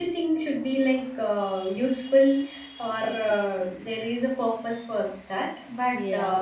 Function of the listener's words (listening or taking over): listening